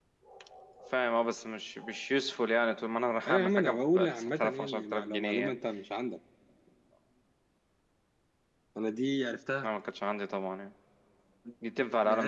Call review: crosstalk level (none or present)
present